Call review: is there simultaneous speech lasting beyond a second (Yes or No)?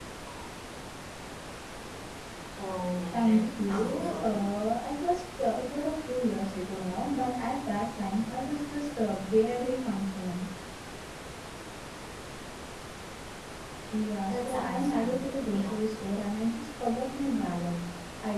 Yes